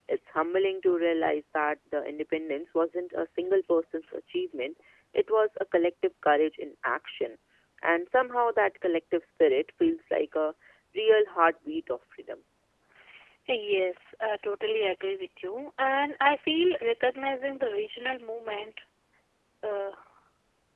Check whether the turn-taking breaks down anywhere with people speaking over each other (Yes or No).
No